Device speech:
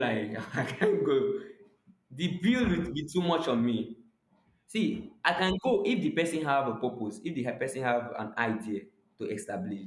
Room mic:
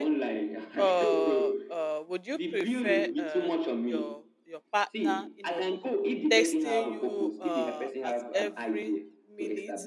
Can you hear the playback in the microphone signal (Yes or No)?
Yes